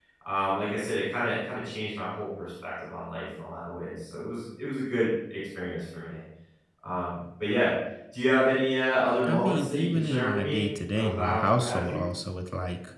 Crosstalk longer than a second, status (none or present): present